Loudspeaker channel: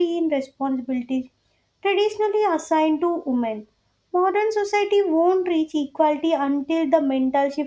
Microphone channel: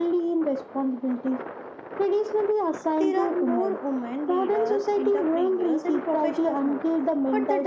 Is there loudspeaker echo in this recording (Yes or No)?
Yes